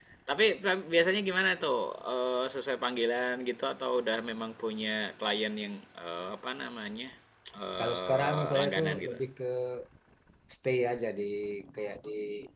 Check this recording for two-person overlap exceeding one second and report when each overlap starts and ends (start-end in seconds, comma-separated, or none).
7.8-9.2